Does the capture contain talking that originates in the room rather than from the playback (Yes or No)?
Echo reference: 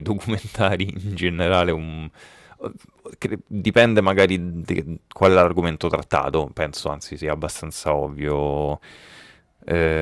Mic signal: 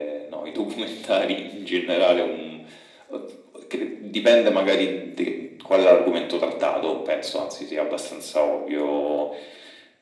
No